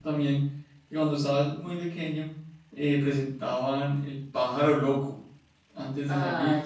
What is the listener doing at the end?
listening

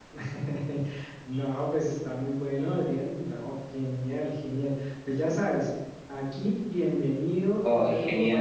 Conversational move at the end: listening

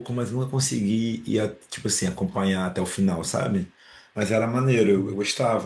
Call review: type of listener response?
listening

